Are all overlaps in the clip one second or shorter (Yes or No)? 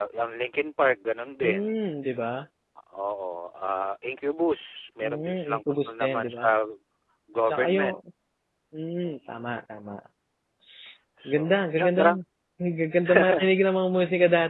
No